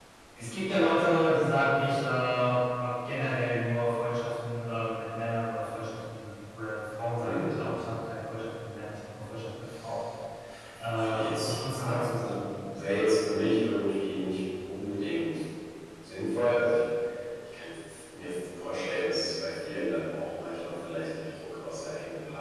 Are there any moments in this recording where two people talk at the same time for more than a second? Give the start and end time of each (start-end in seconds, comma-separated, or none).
10.9-12.4